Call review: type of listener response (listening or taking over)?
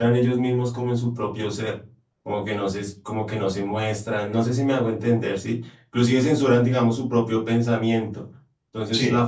listening